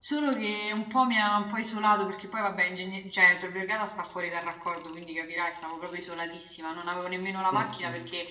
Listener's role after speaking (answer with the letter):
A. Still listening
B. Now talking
A